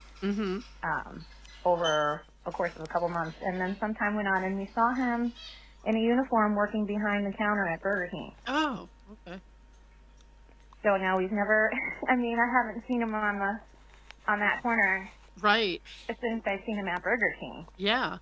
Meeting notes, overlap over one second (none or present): none